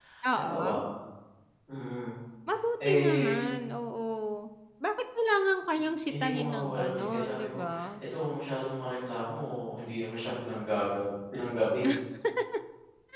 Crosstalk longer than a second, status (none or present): present